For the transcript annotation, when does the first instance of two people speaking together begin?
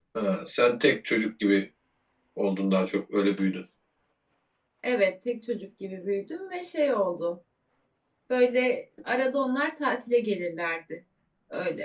none

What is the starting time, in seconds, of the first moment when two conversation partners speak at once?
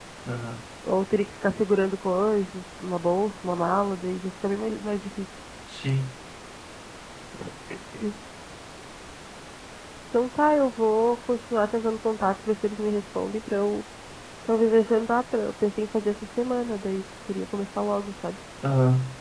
none

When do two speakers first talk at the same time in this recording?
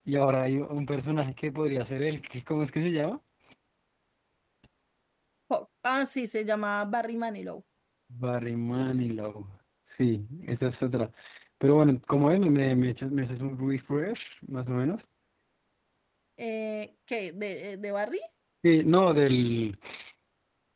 none

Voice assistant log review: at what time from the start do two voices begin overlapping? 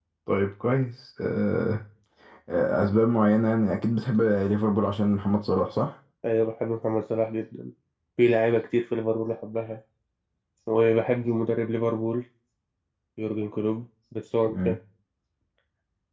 none

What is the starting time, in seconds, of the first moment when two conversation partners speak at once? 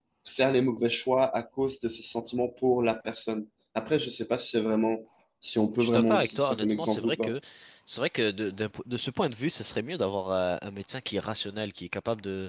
5.8 s

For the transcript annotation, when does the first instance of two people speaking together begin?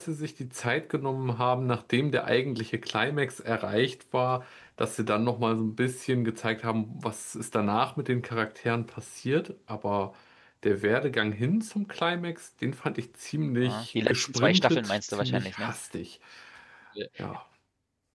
13.6 s

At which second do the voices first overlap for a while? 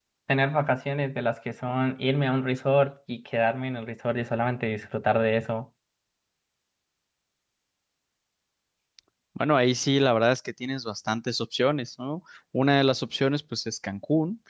none

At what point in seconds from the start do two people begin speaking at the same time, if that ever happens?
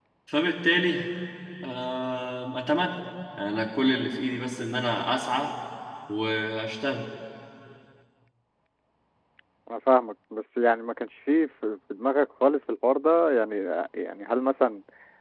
none

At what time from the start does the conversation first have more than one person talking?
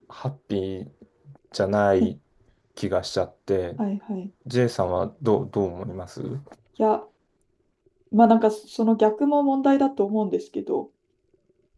none

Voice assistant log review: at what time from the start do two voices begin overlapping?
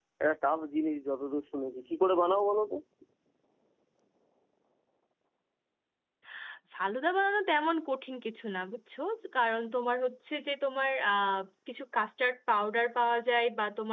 none

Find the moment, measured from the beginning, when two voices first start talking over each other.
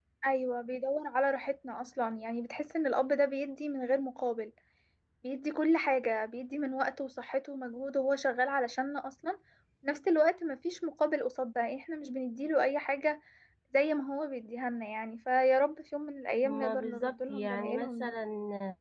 16.4 s

